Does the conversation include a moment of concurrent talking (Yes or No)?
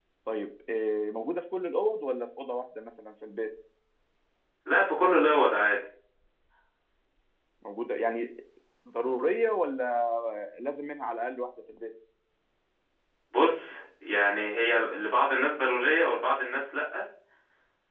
No